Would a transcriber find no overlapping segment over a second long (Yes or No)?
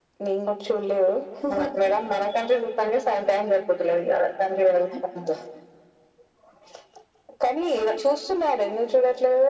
Yes